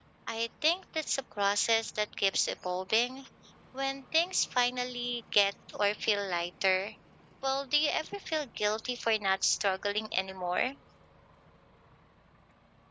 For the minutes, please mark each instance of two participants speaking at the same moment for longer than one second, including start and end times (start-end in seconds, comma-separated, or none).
none